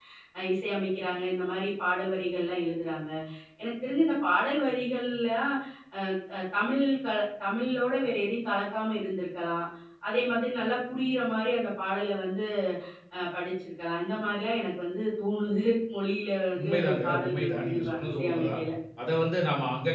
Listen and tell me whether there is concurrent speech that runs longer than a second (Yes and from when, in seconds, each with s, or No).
Yes, from 16.6 s